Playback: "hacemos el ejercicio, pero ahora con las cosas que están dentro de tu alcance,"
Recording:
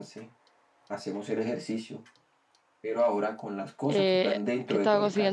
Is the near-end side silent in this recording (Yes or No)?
No